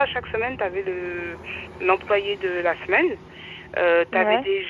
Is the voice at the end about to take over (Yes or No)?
No